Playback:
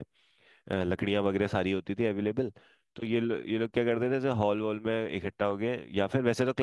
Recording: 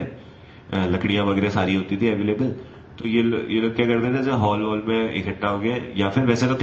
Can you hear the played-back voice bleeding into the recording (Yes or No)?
Yes